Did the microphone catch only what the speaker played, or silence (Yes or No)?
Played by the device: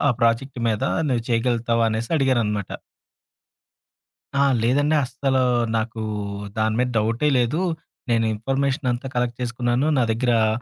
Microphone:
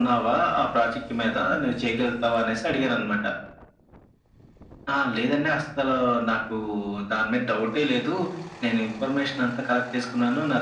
Yes